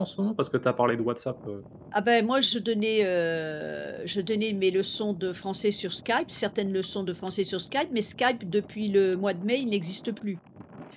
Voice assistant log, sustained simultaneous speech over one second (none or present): none